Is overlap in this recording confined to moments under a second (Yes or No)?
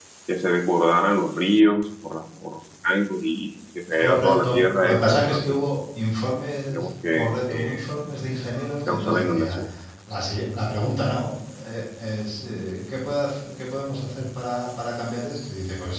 No